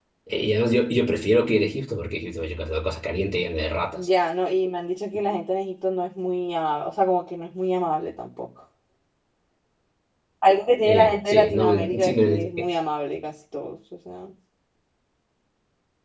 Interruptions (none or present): present